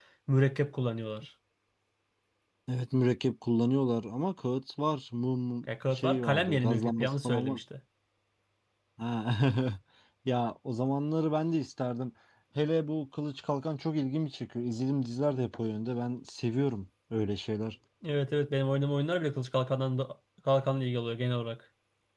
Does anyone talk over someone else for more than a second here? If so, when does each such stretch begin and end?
5.9-7.6

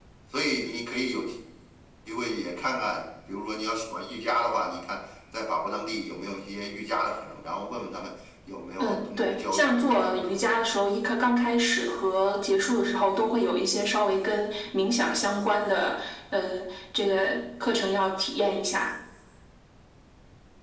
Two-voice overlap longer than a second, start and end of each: 8.8-10.4

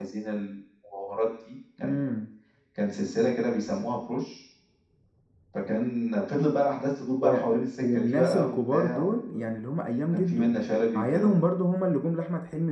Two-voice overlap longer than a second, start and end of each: 7.8-9.4

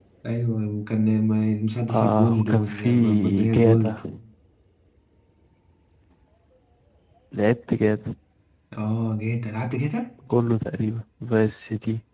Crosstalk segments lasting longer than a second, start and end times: 1.9-4.0

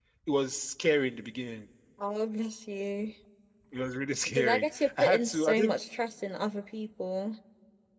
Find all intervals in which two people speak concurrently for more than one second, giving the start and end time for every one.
4.4-5.7

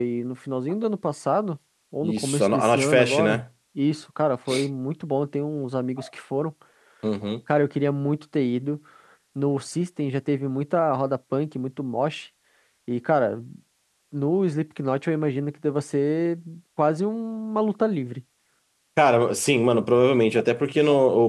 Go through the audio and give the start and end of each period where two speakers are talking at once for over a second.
2.0-3.4

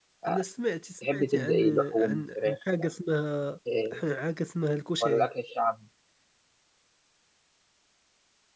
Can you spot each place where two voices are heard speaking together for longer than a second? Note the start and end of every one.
1.0-2.9

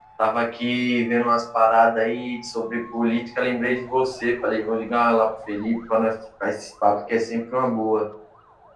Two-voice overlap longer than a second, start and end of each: none

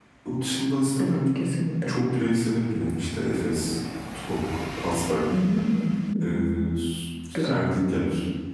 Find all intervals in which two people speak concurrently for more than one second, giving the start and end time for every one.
none

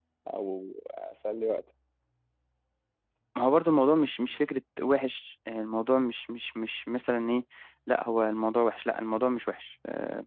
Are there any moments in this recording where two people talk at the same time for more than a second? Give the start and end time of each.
none

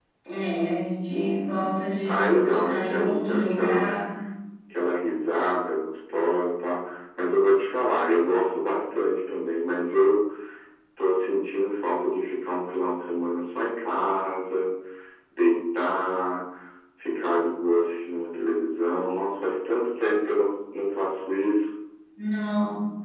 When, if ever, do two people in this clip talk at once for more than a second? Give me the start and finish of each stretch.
2.0-3.9

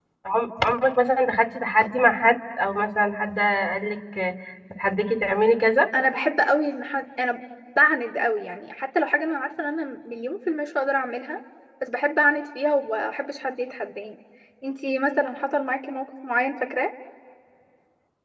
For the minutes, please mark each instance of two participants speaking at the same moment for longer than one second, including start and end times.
none

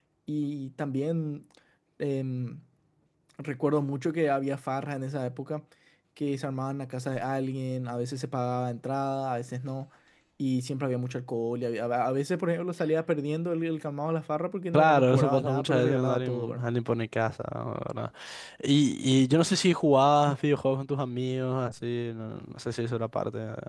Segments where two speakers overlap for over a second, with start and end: 14.7-16.7

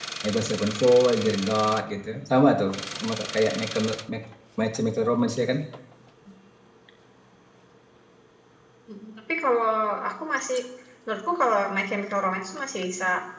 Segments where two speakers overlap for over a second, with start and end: none

